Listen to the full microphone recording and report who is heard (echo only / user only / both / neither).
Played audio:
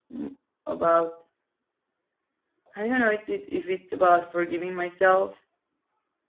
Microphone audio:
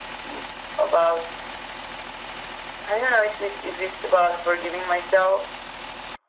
echo only